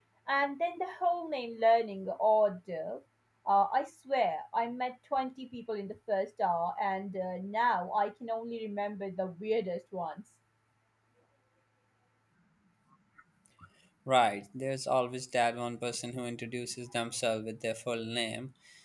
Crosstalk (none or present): none